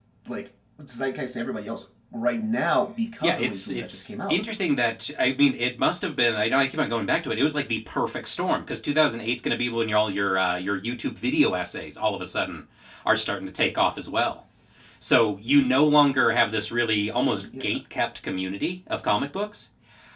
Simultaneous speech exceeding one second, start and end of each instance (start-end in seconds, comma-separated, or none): 3.2-4.4